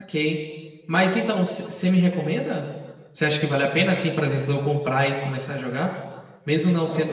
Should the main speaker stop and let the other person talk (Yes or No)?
No